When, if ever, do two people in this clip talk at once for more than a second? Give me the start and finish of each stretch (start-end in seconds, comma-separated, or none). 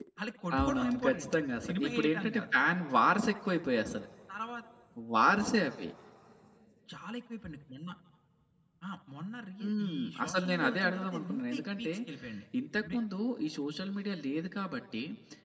0.6-2.4, 9.6-11.9